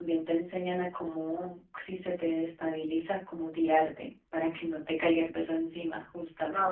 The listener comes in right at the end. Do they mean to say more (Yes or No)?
Yes